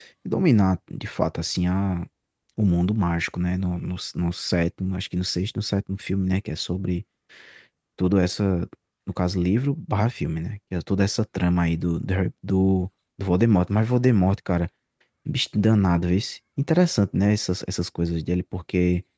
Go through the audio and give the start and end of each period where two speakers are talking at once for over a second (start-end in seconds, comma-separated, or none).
none